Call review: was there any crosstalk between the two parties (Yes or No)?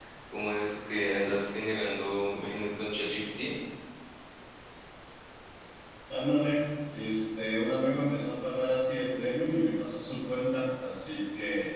No